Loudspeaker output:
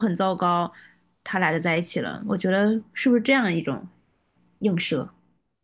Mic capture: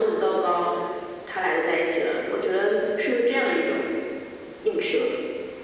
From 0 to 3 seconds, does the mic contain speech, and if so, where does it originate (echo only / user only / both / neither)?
echo only